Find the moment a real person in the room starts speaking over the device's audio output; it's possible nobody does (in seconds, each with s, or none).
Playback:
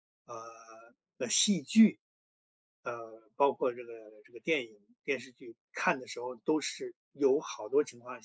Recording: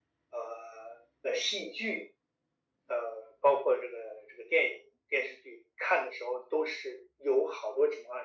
none